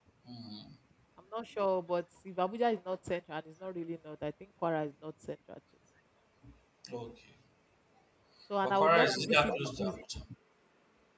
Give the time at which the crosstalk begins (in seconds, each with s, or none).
8.6 s